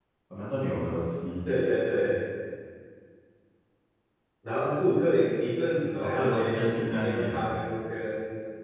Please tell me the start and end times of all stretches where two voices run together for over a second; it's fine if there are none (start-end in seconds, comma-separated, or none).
6.0-7.5